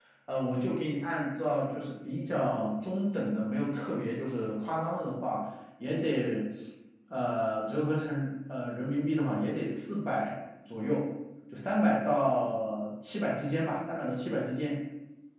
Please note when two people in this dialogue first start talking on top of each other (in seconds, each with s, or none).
none